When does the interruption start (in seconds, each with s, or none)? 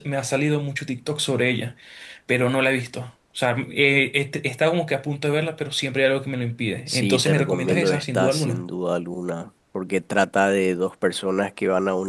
6.9 s